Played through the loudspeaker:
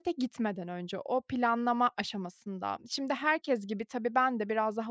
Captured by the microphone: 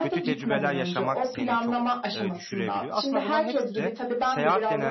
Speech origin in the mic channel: both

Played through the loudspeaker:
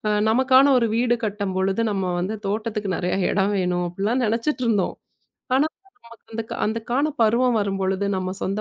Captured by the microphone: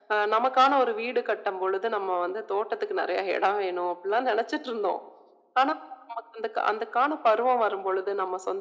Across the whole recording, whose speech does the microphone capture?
echo only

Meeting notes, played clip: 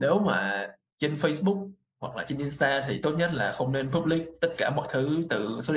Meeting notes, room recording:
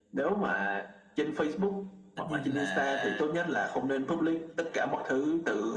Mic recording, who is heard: both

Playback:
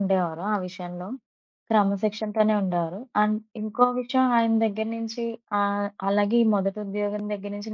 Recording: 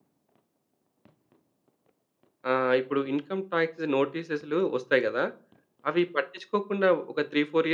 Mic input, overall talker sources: user only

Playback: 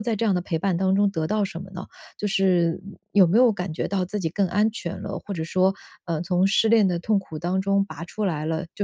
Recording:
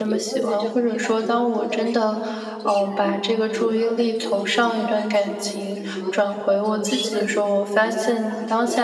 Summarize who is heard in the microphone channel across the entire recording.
both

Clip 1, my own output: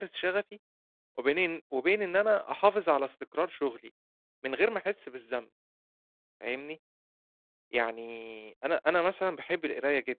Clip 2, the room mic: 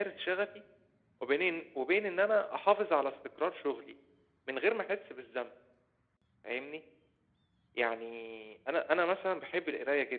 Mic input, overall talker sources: echo only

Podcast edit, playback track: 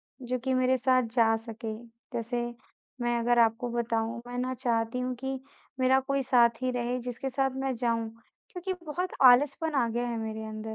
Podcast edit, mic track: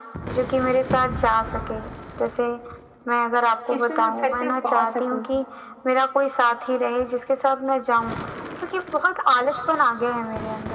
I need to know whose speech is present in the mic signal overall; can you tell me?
both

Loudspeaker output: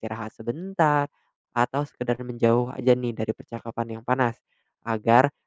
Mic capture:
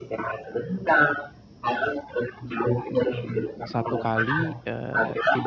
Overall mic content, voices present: both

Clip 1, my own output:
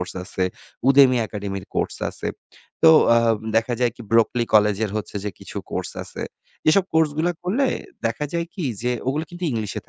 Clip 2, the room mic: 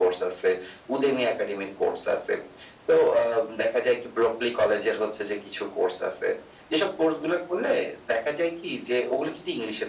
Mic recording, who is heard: echo only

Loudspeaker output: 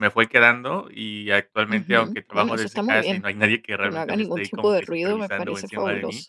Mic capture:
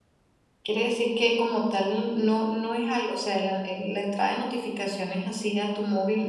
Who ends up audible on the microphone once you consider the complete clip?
user only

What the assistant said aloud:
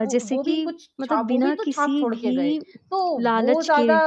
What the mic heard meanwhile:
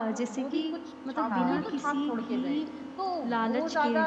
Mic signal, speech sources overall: both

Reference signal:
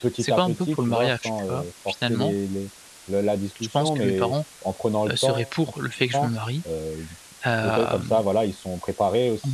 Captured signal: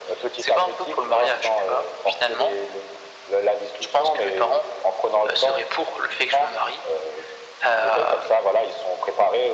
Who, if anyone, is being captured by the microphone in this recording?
echo only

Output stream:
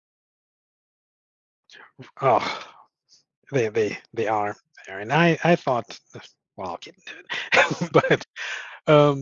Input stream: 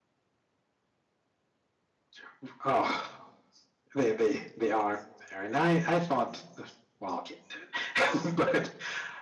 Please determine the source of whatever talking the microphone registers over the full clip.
echo only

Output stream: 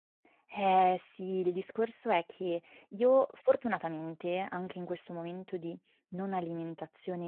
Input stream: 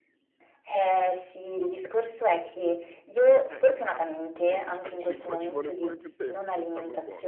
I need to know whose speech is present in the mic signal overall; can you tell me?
both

